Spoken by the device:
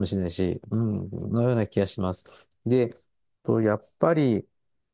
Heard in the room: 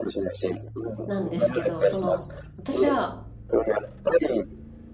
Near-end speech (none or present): present